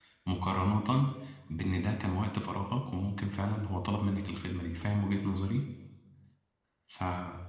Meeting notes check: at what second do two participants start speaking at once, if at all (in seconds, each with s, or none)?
none